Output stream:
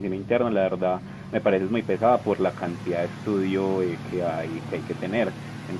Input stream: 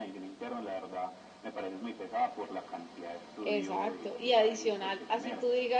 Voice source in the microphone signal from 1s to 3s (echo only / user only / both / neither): echo only